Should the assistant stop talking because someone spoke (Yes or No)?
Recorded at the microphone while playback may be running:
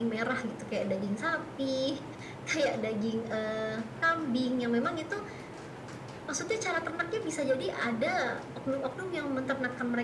No